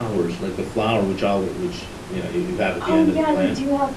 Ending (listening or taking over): taking over